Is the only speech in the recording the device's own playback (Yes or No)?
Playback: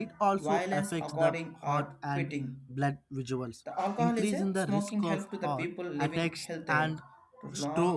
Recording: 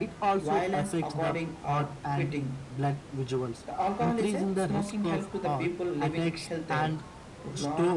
Yes